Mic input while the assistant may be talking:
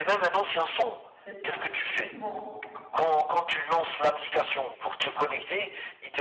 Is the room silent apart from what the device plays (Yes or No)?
No